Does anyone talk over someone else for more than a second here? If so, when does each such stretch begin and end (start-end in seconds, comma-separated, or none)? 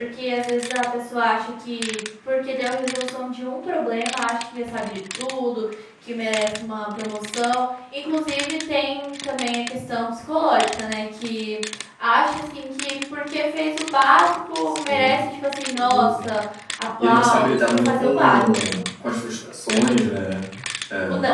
17.0-18.5